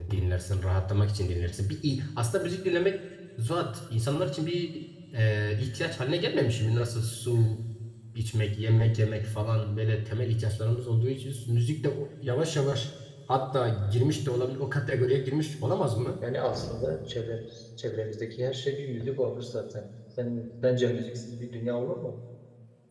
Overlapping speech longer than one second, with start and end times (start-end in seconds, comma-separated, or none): none